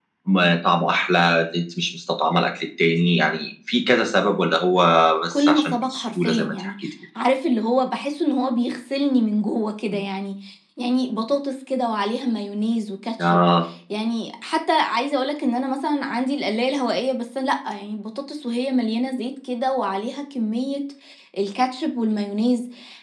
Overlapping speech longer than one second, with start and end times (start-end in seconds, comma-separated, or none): 5.3-6.7